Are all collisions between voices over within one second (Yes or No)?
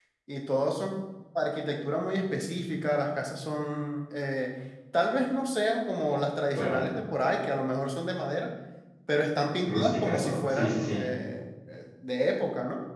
No